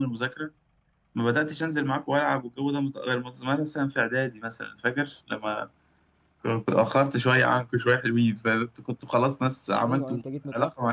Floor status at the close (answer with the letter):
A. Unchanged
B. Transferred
B